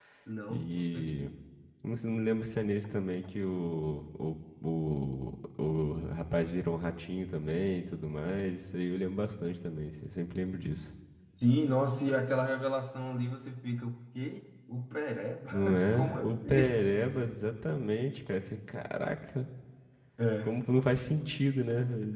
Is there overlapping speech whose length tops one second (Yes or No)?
Yes